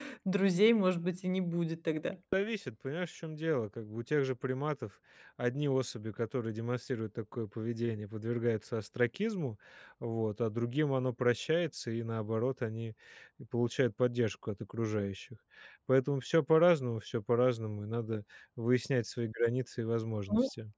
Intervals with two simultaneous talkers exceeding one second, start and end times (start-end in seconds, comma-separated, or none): none